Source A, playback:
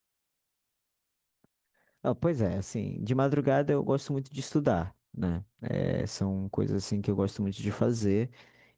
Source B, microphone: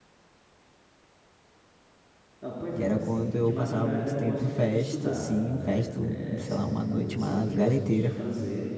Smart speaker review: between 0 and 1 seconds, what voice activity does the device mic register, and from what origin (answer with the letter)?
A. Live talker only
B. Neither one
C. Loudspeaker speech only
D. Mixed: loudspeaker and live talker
B